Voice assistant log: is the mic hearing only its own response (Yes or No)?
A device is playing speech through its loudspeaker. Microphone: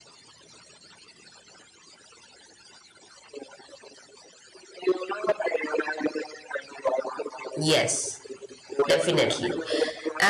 No